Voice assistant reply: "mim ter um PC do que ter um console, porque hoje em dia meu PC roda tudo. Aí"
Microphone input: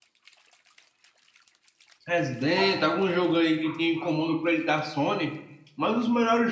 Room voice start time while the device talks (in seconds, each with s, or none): 2.1 s